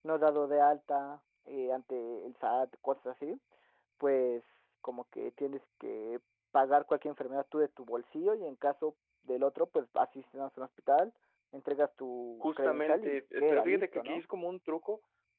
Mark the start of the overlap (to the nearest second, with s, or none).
12 s